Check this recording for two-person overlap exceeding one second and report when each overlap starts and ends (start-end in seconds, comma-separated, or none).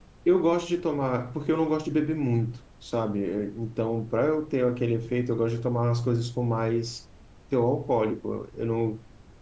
none